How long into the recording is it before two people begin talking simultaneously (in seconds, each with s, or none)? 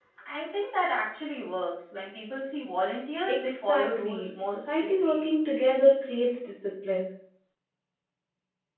3.3 s